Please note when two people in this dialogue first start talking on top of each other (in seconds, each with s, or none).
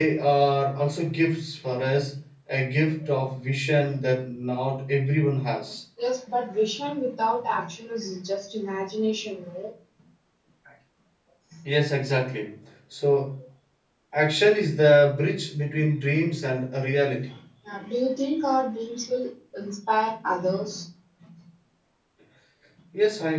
none